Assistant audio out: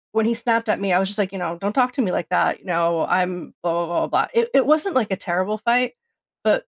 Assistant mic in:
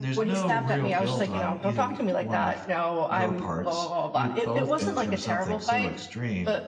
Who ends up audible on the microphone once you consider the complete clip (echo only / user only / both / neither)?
both